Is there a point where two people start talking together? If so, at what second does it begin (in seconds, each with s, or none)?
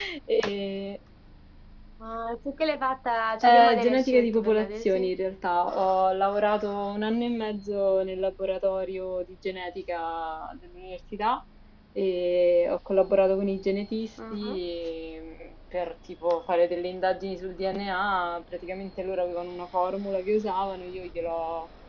3.4 s